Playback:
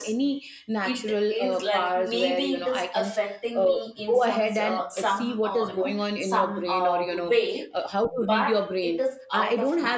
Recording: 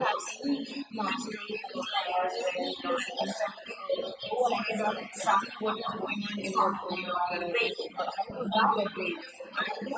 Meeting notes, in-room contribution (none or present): none